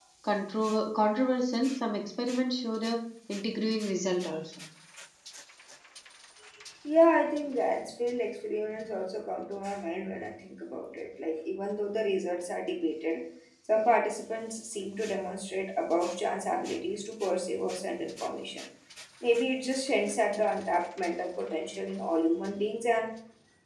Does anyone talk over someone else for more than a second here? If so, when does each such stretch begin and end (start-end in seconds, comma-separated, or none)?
none